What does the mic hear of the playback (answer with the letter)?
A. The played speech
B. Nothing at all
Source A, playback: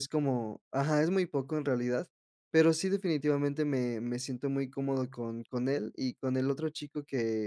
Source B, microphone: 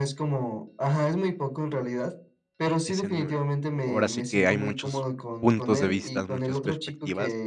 A